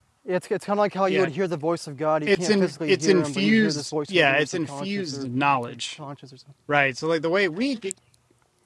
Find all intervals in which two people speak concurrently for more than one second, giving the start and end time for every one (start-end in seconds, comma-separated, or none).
2.3-5.3